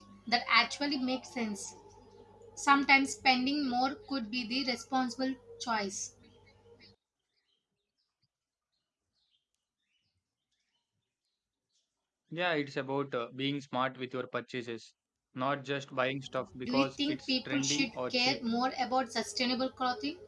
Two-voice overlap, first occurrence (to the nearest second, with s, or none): 17 s